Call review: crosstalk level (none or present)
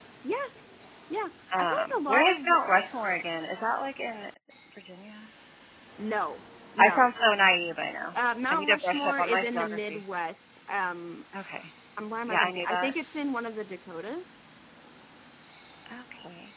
present